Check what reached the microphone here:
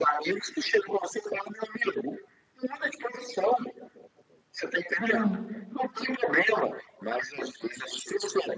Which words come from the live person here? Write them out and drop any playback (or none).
uhum,